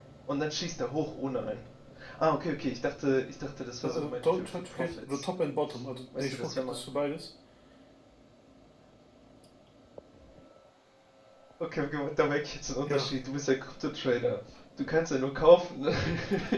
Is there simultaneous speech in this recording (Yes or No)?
Yes